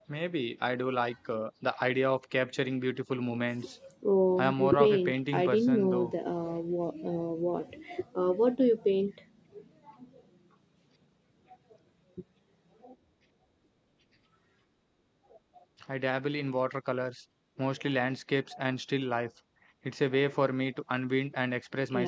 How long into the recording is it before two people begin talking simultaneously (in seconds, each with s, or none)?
4.4 s